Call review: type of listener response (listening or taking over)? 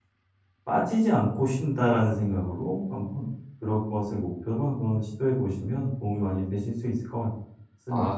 taking over